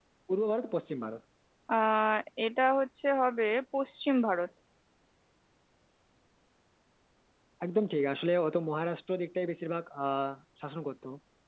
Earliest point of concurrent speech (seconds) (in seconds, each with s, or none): none